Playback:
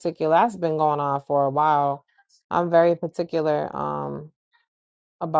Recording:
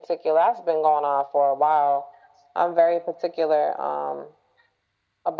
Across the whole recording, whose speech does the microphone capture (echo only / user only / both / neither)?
echo only